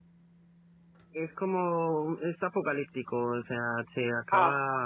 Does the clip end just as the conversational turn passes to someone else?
No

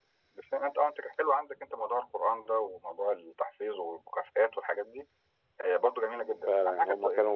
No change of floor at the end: No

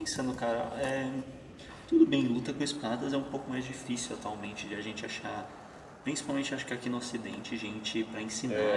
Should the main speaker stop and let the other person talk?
Yes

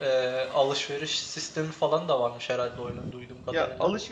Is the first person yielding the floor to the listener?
Yes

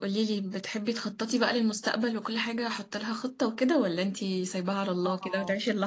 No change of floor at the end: No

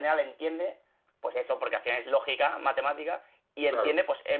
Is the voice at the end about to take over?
No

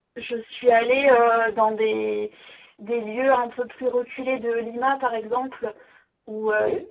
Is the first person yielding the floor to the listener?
No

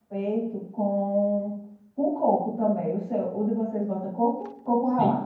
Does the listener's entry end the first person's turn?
Yes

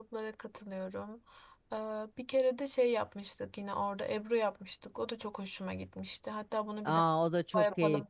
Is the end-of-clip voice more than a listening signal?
Yes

